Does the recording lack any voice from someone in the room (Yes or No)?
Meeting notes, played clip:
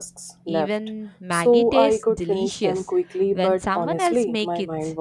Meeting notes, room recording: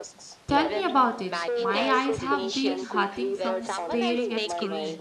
No